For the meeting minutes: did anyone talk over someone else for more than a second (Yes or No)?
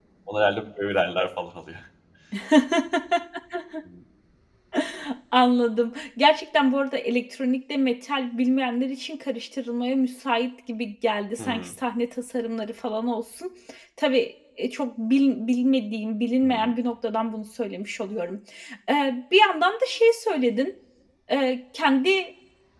No